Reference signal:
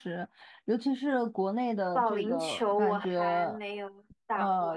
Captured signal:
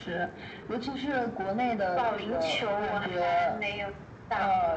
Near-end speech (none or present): none